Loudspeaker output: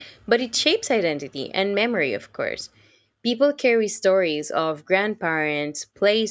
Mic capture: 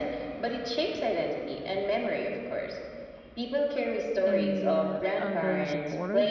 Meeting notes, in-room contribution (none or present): present